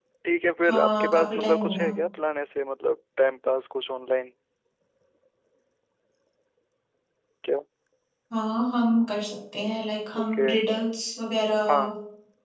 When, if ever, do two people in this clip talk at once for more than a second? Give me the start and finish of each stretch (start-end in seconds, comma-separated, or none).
0.7-1.9